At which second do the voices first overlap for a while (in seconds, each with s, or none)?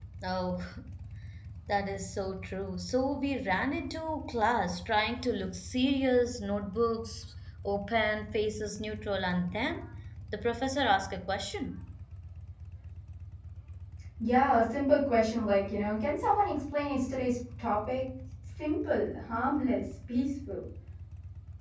none